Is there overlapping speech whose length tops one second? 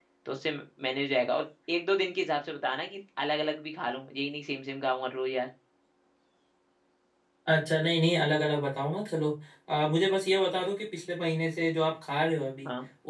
No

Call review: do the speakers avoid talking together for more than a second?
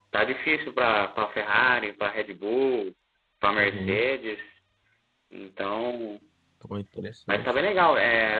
Yes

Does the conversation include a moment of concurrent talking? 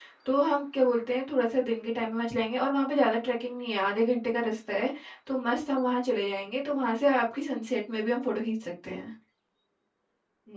No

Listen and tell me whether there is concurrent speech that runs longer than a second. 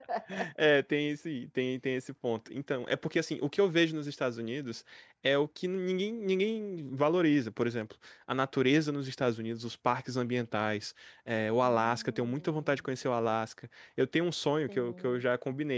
Yes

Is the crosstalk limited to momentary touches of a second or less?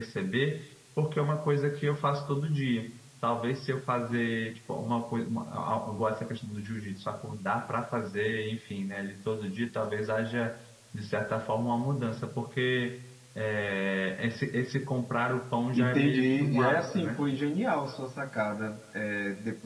No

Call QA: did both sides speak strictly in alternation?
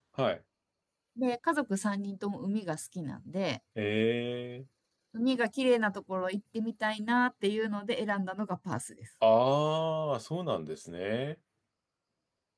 Yes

